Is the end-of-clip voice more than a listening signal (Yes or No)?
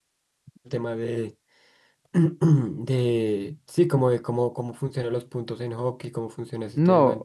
Yes